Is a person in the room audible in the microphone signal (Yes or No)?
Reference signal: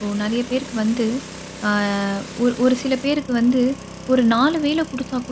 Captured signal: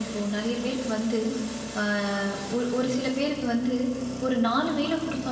Yes